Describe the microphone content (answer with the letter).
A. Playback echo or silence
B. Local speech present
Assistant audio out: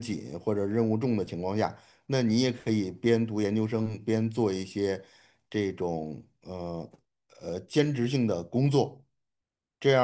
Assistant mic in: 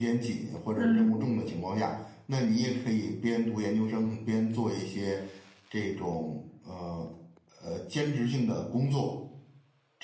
B